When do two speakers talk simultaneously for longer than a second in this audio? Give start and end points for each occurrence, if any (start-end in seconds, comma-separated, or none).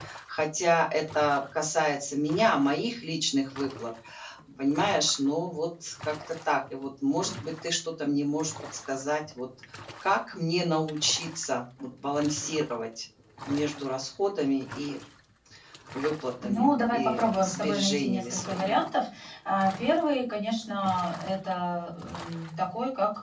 16.4-18.9